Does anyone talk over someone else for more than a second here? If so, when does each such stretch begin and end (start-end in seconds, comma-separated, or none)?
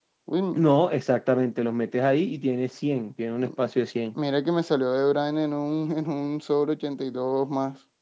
none